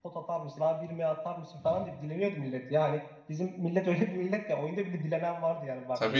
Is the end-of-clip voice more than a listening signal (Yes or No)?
Yes